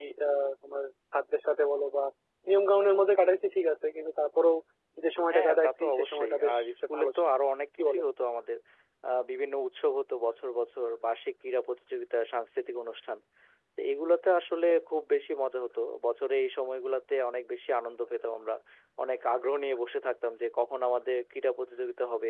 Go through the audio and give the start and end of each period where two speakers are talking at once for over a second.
5.3-6.6

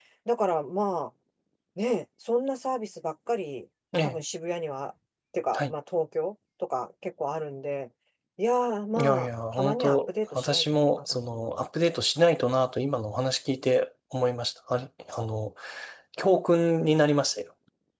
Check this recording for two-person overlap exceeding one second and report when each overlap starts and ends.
9.0-11.7

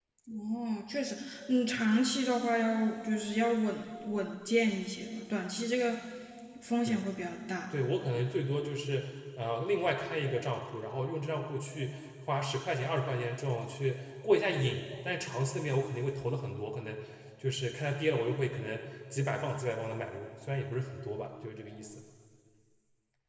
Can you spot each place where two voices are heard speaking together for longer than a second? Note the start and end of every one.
none

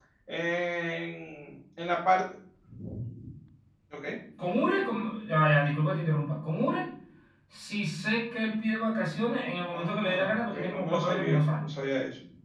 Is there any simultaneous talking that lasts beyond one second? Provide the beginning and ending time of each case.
9.7-11.6

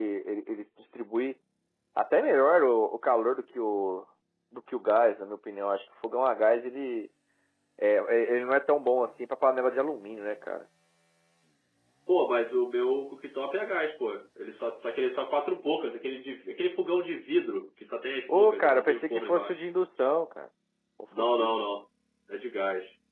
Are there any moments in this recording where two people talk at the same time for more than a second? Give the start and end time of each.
18.3-19.6

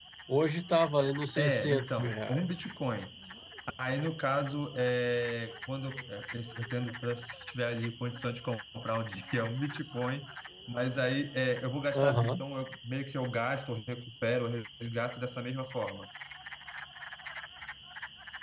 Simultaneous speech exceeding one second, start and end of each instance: 1.4-2.6

